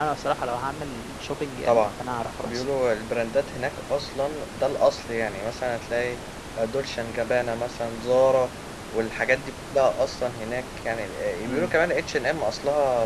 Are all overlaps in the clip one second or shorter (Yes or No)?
Yes